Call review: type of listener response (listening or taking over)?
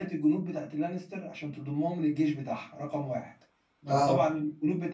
listening